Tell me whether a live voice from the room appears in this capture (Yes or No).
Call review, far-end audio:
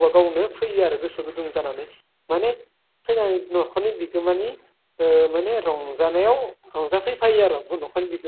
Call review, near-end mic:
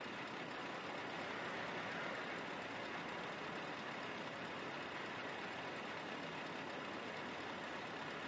No